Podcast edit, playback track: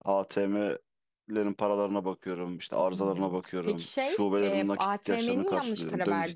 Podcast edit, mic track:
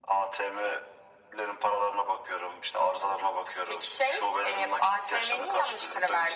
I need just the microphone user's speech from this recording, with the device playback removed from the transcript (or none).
none